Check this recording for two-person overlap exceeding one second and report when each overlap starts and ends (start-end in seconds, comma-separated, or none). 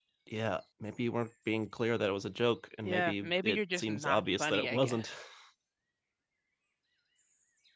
2.8-5.1